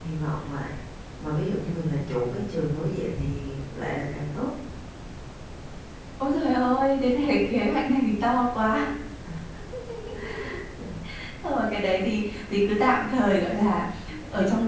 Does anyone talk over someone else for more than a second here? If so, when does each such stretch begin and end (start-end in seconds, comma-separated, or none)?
none